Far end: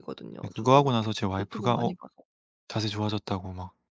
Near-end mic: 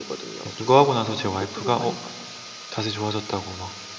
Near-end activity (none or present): none